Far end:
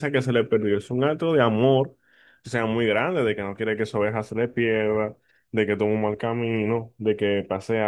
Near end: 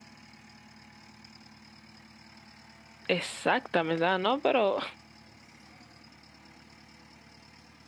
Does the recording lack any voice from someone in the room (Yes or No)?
No